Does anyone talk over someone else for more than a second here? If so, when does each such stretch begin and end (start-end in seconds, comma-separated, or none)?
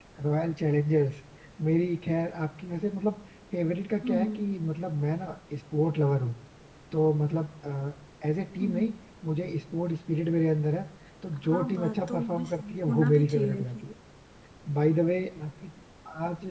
11.5-13.8